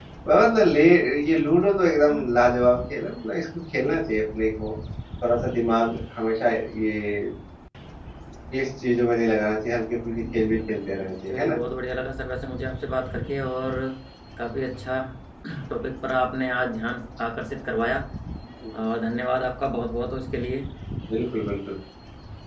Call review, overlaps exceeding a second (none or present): present